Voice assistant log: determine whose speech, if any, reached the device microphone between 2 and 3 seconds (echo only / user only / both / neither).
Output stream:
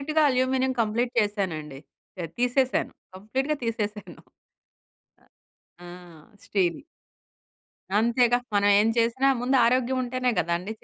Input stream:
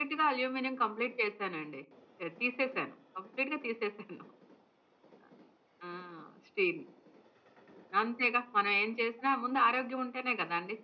echo only